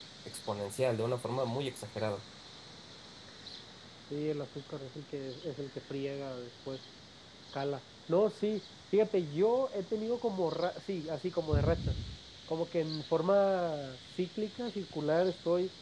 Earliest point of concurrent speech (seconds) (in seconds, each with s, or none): none